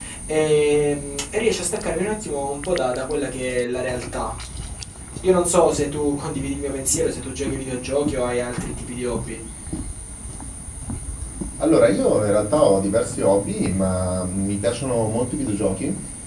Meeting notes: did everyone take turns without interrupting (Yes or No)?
Yes